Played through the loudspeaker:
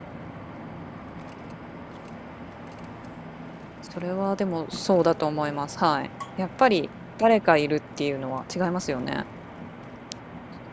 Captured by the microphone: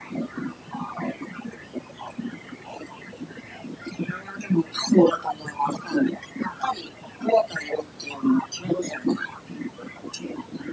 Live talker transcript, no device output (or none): none